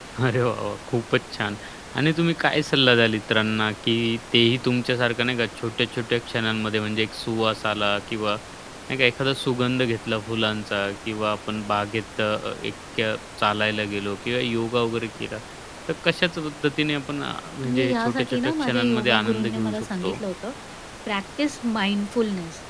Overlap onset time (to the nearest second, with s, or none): 18 s